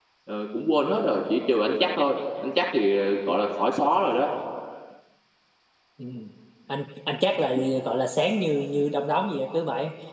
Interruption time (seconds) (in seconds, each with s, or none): none